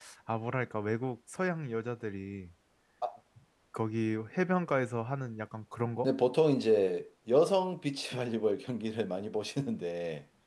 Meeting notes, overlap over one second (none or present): none